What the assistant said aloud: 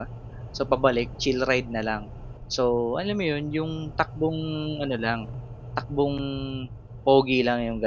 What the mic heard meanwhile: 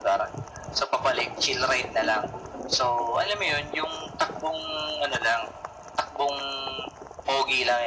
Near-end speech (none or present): none